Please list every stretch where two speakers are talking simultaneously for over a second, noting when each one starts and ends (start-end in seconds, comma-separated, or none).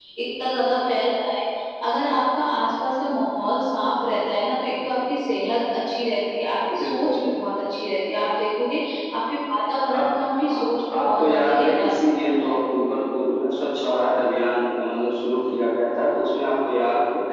10.5-12.6